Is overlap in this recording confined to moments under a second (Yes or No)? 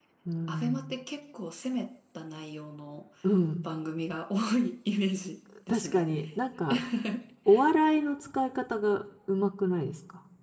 Yes